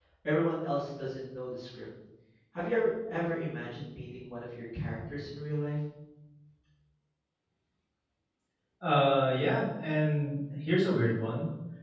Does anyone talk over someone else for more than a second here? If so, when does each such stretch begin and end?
none

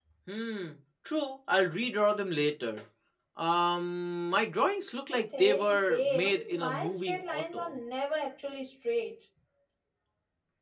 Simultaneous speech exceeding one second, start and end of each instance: 5.1-7.7

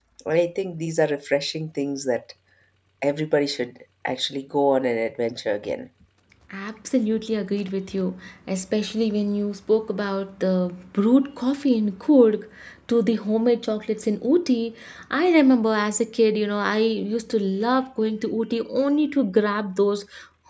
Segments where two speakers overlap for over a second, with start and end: none

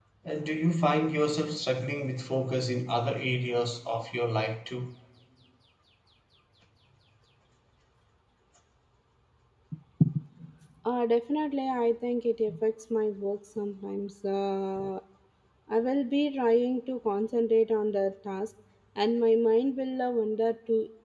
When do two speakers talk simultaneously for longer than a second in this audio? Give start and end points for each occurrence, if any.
none

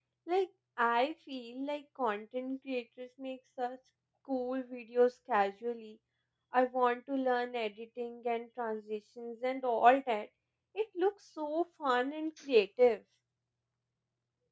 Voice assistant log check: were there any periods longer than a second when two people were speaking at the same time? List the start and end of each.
none

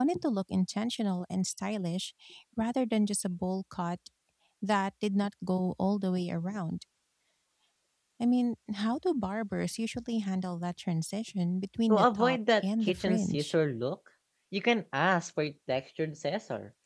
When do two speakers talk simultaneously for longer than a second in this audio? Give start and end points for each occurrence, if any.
11.9-13.5

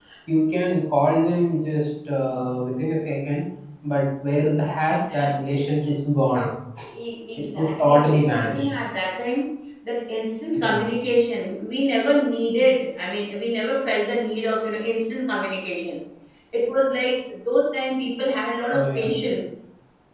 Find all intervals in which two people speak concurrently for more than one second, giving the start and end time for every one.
7.4-8.7

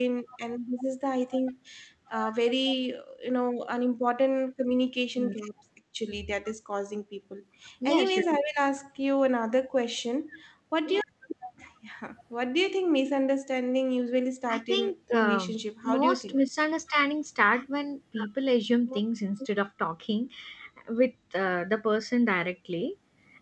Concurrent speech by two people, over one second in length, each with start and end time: 14.5-16.4

